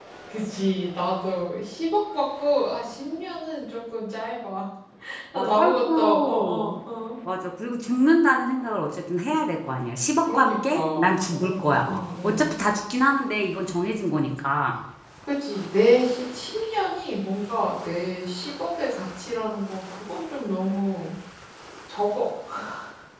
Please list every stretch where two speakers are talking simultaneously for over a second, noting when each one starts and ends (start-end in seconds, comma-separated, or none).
5.4-6.6, 10.3-12.4